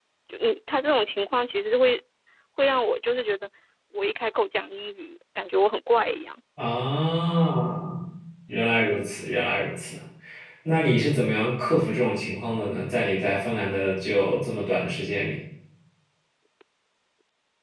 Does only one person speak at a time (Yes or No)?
Yes